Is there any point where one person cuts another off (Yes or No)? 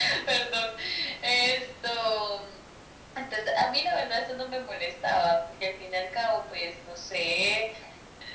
No